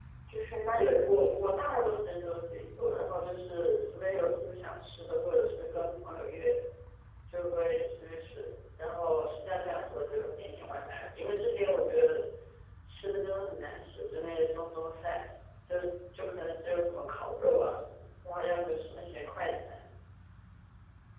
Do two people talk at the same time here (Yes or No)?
Yes